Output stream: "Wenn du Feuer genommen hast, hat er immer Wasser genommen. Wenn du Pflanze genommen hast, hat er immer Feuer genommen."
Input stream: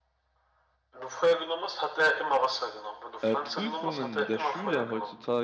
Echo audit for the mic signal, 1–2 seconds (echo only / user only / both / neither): echo only